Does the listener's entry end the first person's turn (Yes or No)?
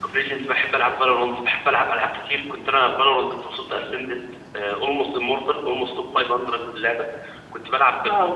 No